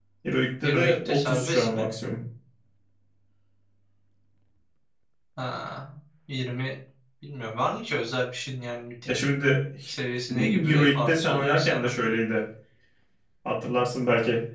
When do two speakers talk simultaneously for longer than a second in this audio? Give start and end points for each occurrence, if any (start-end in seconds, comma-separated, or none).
0.6-1.8, 10.4-11.9